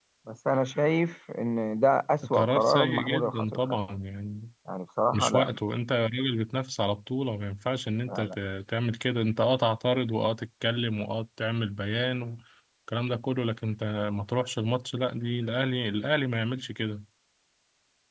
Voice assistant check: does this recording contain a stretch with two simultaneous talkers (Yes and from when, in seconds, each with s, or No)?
Yes, from 2.3 s